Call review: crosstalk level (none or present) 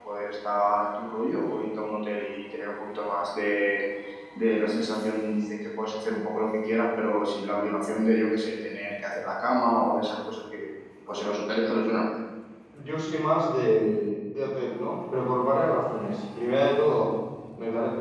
none